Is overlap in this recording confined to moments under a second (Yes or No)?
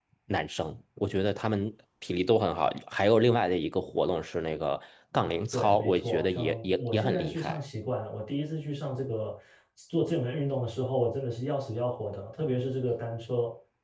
No